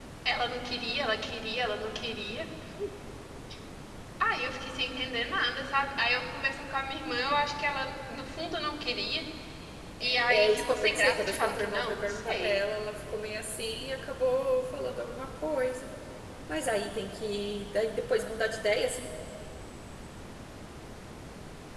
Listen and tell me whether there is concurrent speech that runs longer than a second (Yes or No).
Yes